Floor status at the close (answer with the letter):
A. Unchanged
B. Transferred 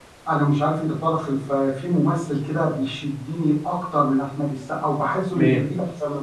A